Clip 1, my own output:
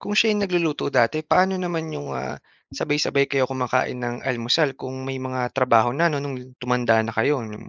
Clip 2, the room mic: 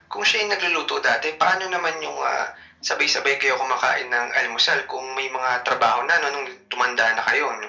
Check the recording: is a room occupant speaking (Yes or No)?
No